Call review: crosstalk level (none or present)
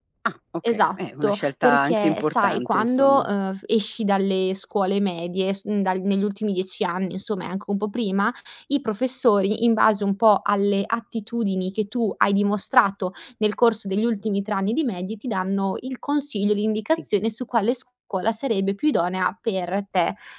present